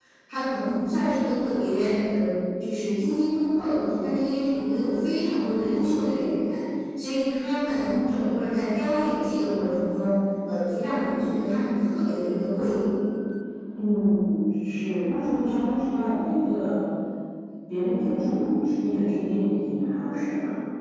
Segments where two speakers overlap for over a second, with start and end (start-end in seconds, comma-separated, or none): none